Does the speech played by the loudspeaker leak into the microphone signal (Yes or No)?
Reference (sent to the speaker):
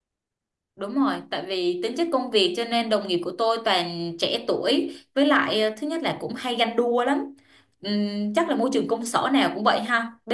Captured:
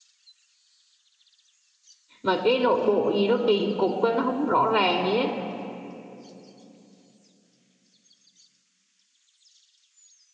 No